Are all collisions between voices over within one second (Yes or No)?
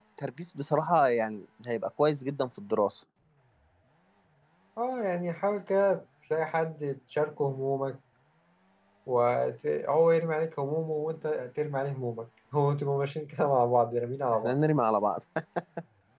Yes